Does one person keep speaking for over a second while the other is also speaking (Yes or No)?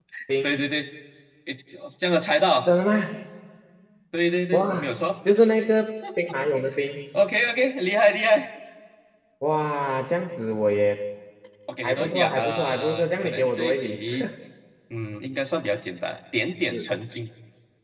Yes